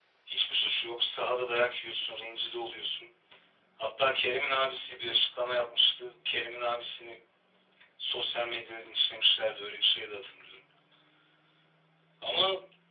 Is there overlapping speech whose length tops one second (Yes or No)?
No